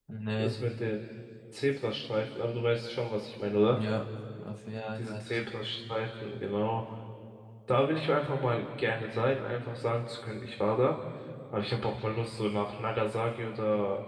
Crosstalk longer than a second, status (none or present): none